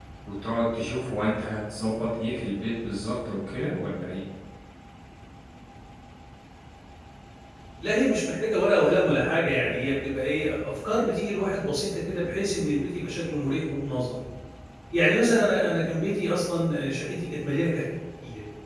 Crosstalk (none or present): none